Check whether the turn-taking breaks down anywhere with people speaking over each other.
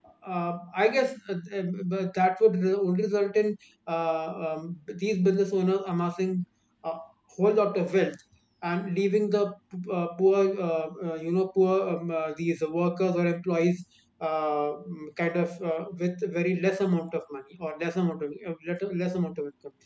No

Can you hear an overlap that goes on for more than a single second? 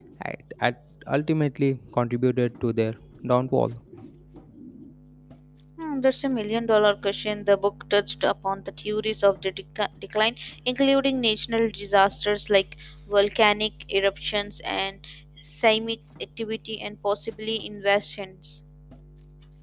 No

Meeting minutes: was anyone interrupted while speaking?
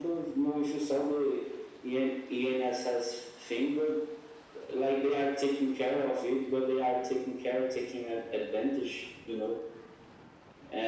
No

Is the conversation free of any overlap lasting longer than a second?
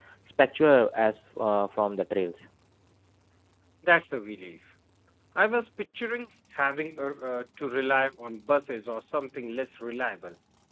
Yes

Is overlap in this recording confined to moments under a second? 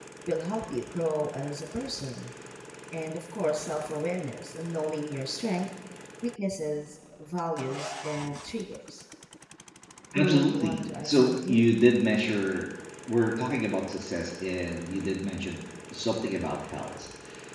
No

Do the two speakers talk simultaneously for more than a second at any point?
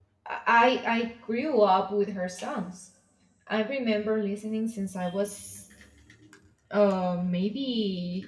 No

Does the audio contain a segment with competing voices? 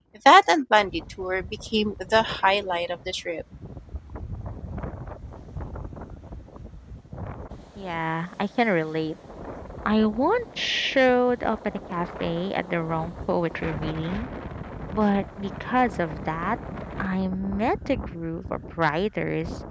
No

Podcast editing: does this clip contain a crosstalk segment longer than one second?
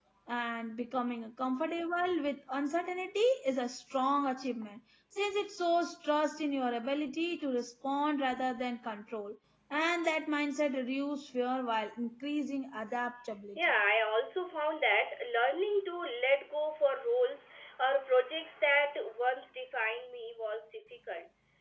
No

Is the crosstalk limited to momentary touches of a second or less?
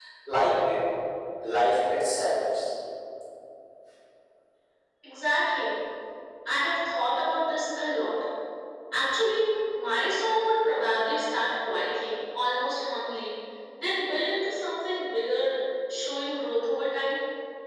Yes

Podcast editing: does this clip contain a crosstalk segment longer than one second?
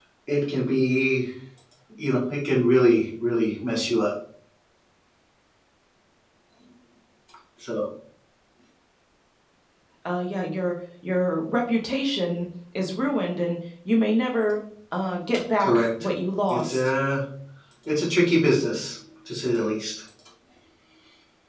No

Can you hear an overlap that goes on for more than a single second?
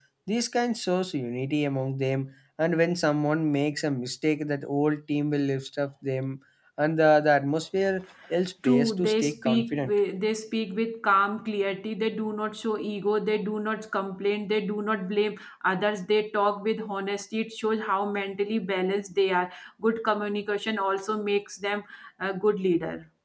Yes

